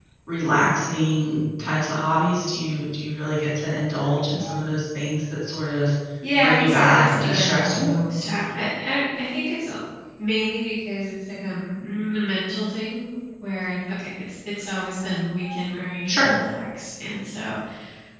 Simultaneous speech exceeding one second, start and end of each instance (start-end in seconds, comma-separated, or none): 6.4-7.9